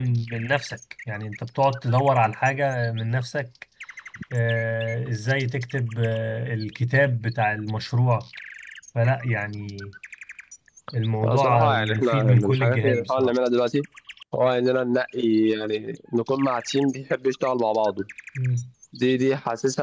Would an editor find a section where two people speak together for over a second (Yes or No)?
Yes